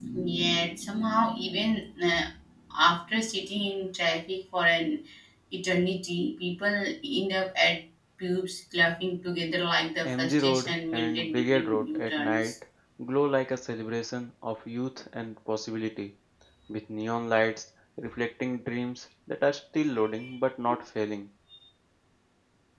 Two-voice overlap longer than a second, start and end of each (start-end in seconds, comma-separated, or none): 10.0-12.5